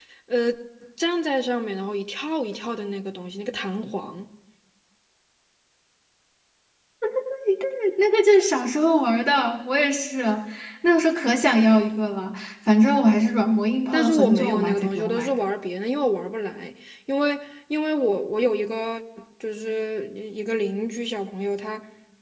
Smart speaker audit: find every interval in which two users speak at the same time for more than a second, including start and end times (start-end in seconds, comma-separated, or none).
13.9-15.4